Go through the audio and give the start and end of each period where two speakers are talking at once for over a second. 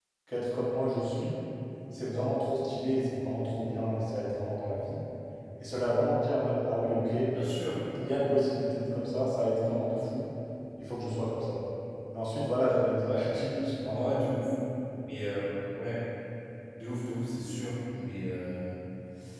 none

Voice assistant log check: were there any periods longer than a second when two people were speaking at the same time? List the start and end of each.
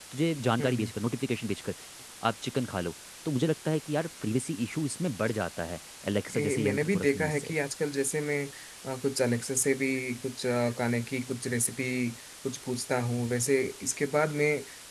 6.3-7.5

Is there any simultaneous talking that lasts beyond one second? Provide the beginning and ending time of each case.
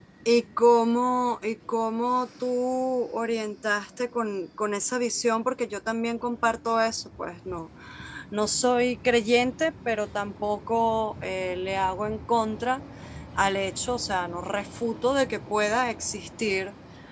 none

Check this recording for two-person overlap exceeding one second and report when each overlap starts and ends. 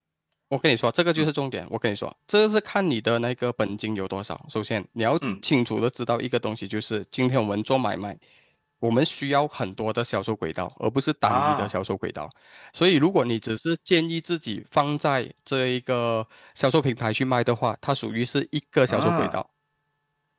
none

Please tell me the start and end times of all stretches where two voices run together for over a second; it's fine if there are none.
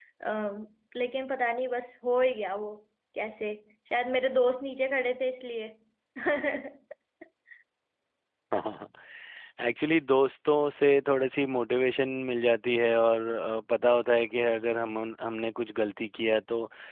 none

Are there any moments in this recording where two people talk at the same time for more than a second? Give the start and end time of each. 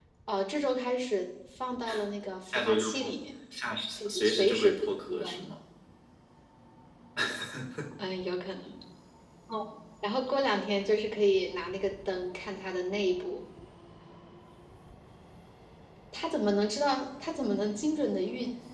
4.1-5.5

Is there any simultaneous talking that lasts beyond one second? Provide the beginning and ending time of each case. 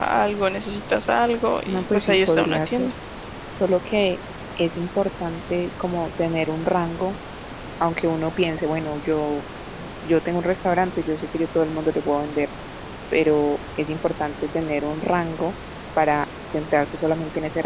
1.7-2.9

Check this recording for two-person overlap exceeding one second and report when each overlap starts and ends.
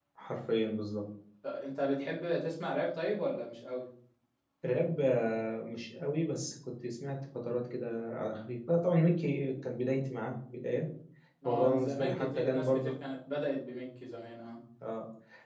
11.4-12.9

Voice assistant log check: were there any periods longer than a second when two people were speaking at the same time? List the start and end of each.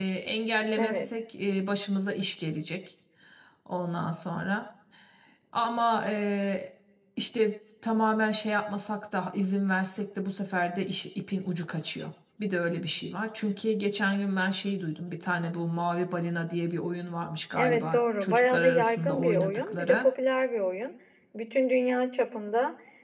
17.6-20.0

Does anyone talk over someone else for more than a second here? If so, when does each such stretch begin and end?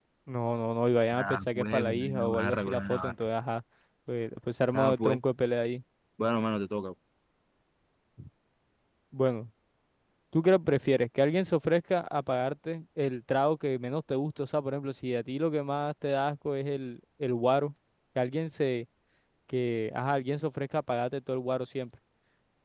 1.1-3.3

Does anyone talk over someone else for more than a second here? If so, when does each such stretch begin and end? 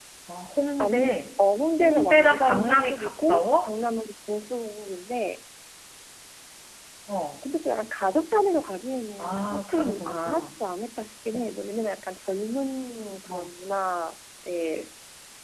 1.8-3.7, 9.2-10.5

